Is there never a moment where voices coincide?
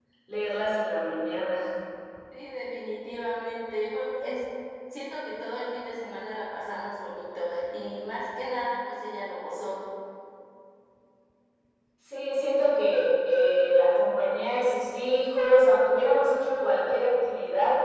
Yes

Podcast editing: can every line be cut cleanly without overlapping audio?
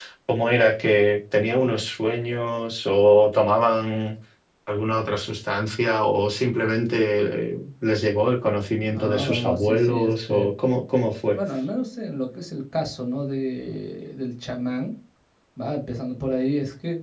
No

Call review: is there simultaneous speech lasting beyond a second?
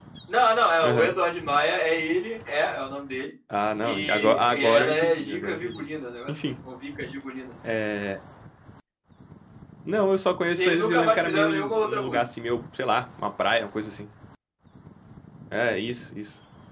Yes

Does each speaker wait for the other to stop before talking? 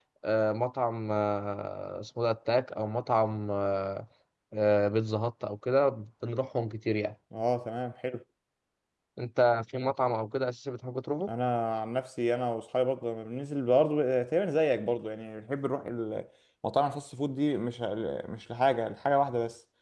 Yes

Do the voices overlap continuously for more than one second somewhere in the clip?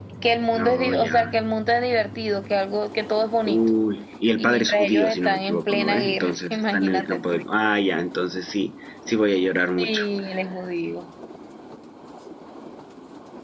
Yes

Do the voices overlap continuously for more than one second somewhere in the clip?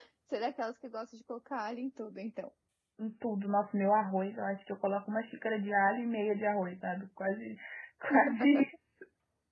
No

